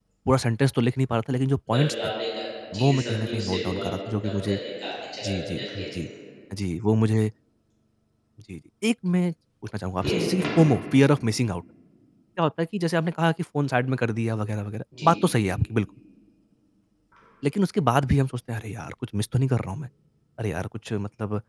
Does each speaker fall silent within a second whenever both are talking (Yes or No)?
No